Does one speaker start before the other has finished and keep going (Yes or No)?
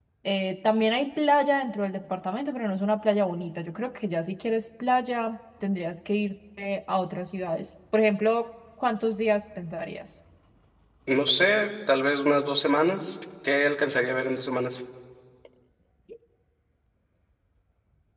No